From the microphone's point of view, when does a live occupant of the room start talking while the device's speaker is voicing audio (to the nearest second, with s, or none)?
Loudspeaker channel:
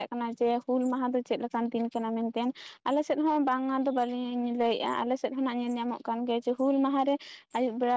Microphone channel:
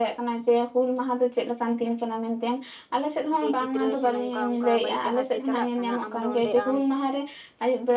3 s